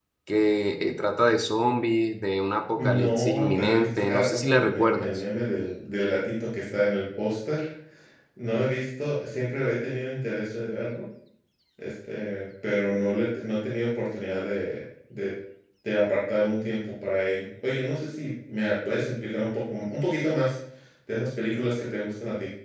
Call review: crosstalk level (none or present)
present